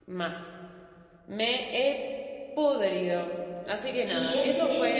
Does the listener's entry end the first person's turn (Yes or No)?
Yes